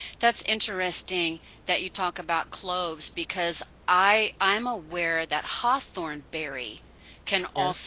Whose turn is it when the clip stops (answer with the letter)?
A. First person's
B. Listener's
A